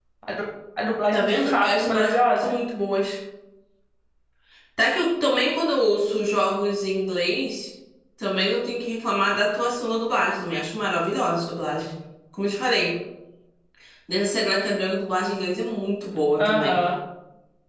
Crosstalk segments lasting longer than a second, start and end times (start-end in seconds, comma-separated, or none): 1.1-2.5